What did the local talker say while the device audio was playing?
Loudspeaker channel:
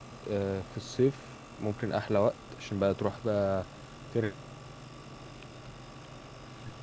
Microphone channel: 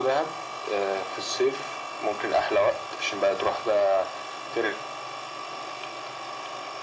none

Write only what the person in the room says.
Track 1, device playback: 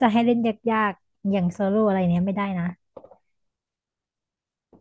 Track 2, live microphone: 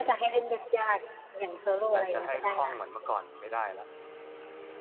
แต่จะให้คล่องเหมือนเมื่อก่อนไม่ได้ละ

